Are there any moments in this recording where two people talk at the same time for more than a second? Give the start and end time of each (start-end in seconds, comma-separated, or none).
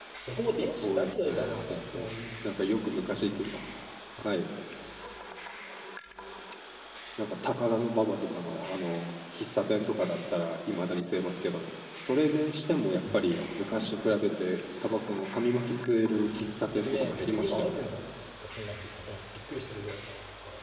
0.7-2.1, 16.3-17.9